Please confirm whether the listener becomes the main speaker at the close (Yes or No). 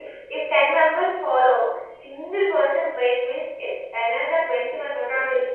Yes